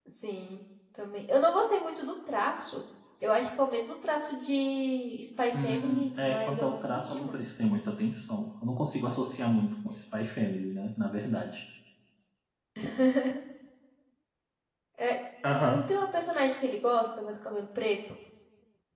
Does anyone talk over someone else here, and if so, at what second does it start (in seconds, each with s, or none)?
5.5 s